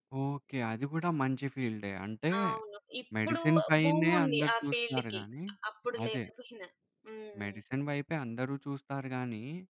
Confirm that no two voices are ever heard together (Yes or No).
No